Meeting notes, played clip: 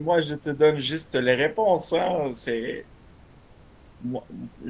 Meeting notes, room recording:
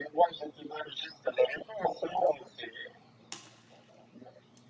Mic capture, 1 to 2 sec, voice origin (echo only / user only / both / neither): echo only